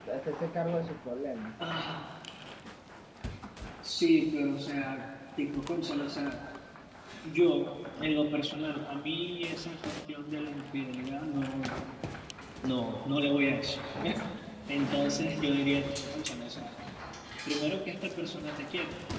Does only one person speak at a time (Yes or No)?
Yes